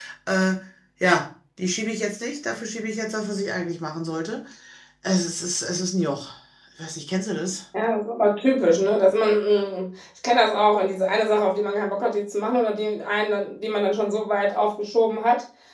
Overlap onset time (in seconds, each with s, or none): none